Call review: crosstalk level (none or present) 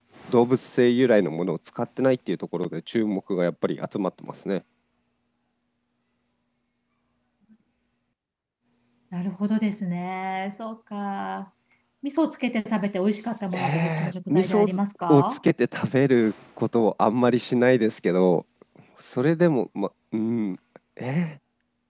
present